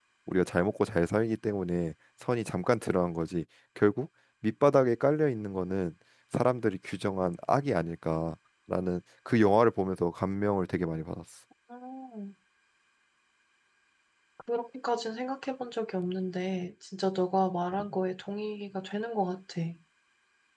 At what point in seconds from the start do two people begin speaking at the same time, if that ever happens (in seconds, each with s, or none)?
none